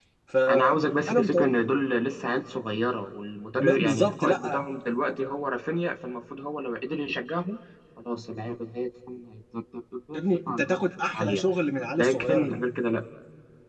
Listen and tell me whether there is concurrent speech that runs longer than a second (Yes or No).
Yes